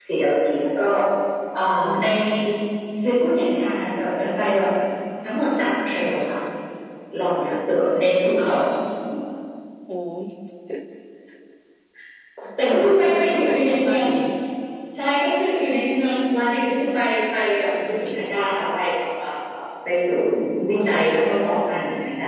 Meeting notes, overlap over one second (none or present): present